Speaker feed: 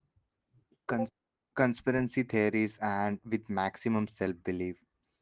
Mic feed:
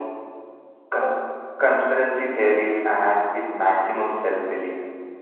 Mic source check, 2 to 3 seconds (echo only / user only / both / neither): echo only